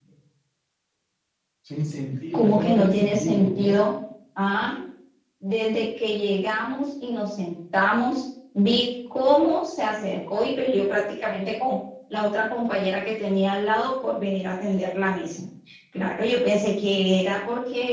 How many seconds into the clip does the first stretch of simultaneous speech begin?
2.3 s

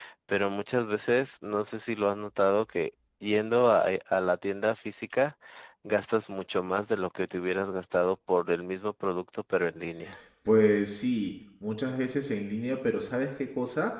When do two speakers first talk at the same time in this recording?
none

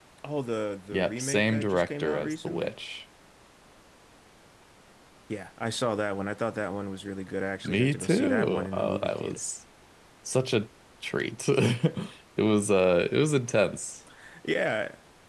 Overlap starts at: 0.9 s

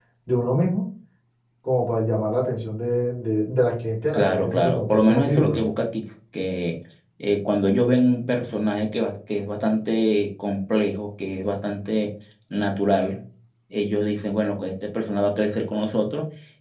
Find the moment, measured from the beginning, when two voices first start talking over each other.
4.1 s

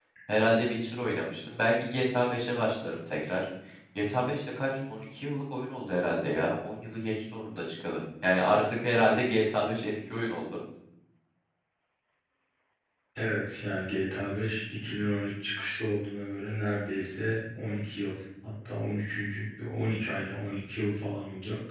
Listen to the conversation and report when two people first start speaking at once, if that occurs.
none

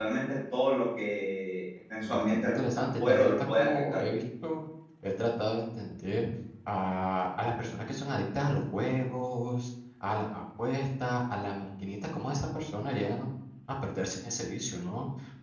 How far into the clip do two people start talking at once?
2.0 s

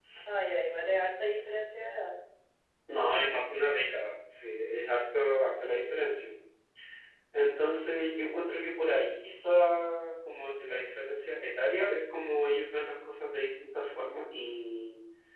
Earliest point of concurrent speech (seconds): none

